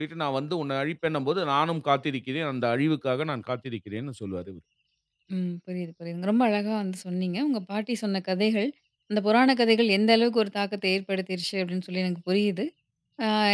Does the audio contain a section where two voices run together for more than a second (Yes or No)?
No